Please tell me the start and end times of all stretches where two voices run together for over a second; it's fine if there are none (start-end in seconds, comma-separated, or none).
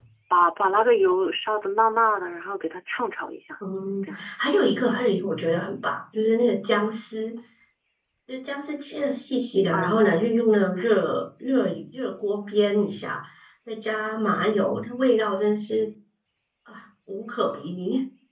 none